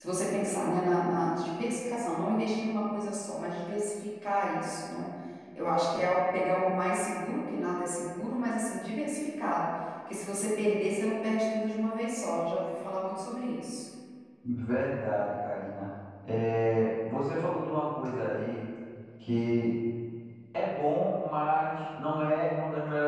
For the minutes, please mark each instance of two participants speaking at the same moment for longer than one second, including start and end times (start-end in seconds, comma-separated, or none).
none